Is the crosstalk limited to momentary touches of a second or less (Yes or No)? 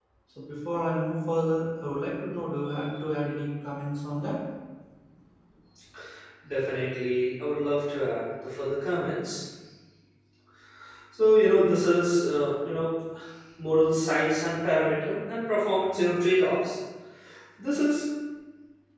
Yes